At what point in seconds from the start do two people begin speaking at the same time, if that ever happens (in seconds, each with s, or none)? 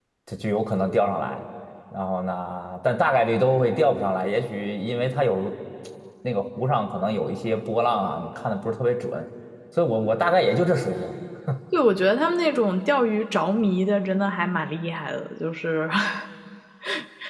none